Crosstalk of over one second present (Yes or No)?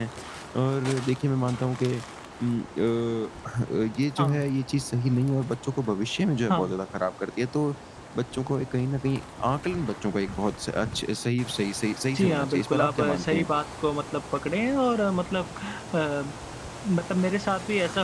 Yes